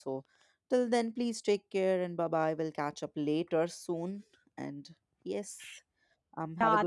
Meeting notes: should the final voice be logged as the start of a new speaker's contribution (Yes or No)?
Yes